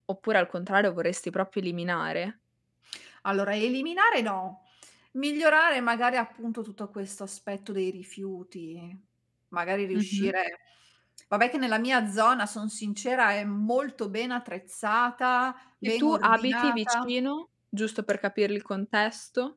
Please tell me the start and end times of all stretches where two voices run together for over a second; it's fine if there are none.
15.8-17.1

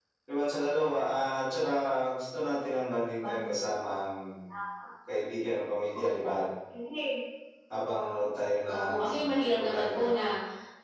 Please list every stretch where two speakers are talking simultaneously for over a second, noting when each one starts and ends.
8.7-10.2

